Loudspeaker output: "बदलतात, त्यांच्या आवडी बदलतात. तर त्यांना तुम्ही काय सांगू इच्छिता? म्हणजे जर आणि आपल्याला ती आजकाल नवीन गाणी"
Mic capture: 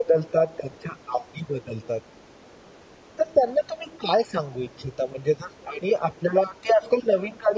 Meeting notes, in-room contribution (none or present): none